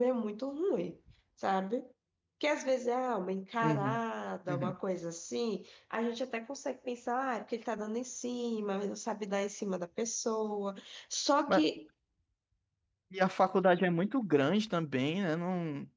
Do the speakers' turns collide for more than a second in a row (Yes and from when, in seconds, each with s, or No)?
No